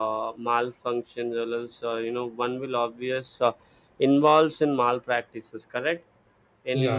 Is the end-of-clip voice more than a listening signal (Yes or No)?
No